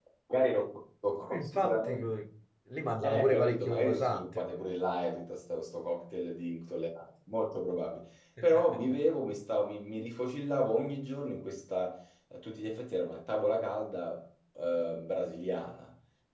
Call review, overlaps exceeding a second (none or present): present